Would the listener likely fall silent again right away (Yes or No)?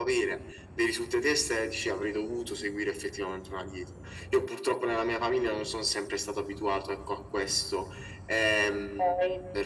No